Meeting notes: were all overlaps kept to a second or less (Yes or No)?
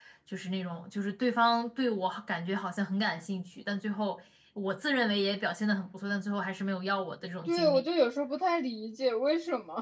Yes